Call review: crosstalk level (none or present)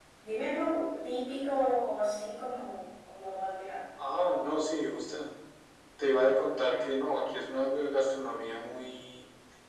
none